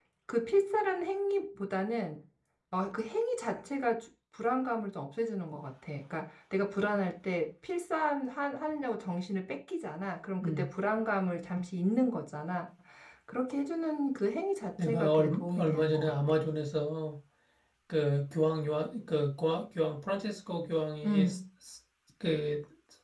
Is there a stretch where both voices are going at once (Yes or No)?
Yes